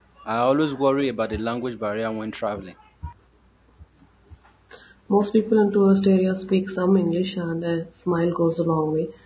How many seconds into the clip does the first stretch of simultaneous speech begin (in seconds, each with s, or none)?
none